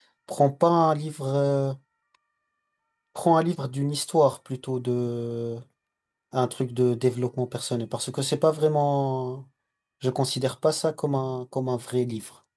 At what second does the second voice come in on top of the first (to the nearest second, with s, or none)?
none